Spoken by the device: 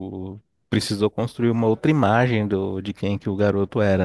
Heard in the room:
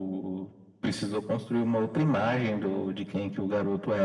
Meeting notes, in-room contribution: none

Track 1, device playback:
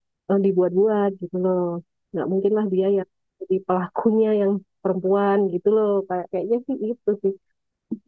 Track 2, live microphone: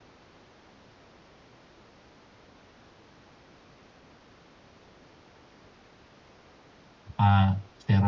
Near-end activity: present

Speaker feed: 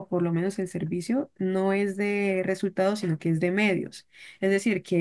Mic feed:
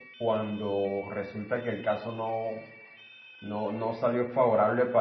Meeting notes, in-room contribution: present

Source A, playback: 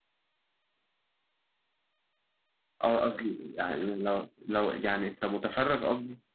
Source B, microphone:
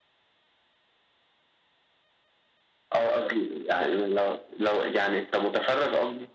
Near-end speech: none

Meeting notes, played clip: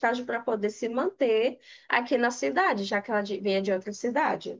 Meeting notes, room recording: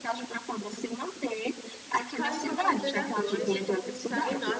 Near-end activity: present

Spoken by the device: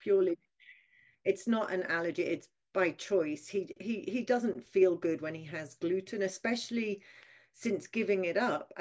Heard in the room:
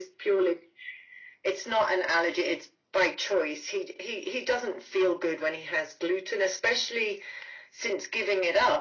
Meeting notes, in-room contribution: none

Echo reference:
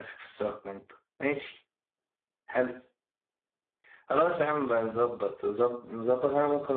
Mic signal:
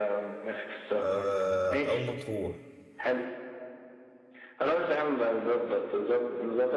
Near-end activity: present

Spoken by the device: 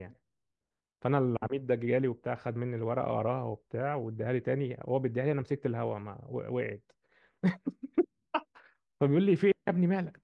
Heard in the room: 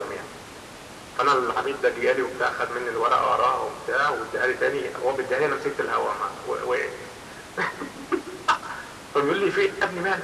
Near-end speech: none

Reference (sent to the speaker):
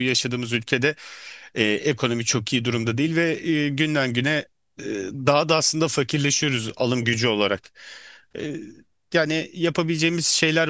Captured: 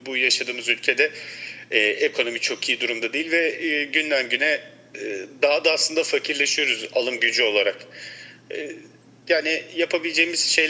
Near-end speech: none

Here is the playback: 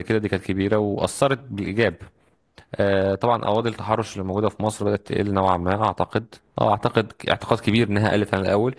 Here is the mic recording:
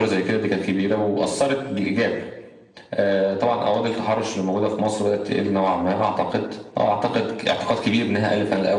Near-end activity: none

